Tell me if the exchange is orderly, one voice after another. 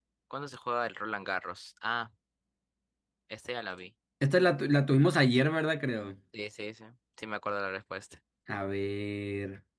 Yes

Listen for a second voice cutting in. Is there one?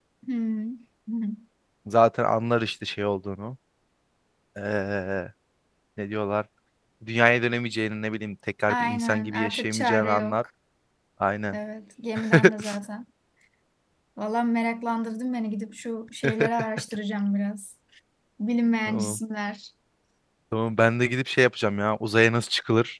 Yes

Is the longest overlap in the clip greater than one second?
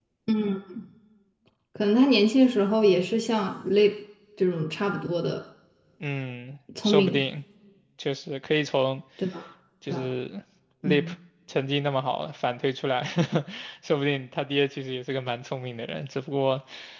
No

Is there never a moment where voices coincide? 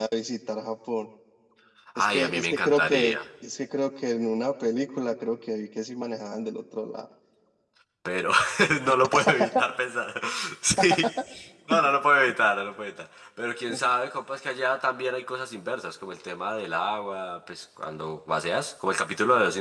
No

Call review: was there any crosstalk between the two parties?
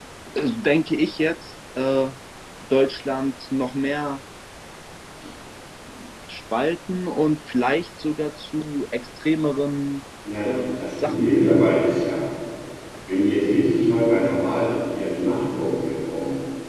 Yes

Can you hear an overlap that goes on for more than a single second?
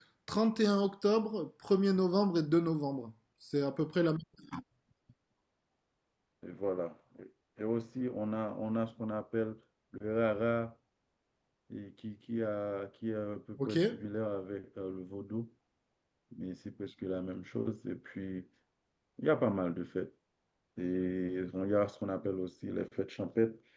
No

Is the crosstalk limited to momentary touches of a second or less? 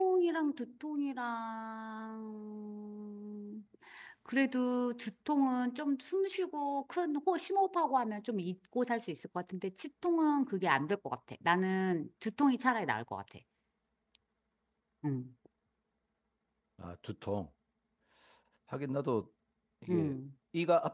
Yes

